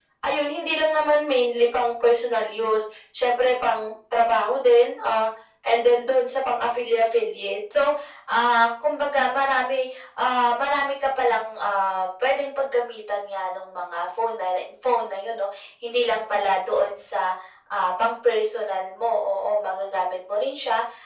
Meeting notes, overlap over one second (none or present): none